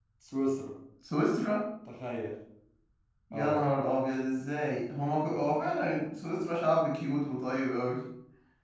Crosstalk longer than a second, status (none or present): none